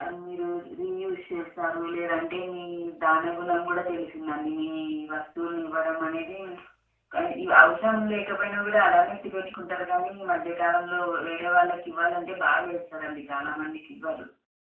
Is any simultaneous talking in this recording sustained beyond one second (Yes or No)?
No